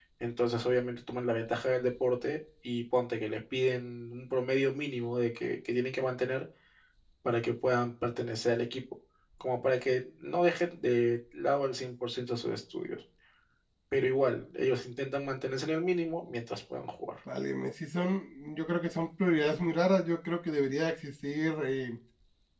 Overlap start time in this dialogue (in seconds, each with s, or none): none